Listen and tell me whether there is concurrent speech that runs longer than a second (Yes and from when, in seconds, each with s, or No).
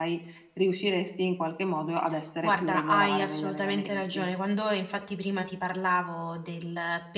Yes, from 2.4 s